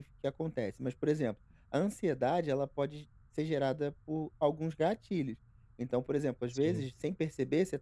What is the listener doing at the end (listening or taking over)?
listening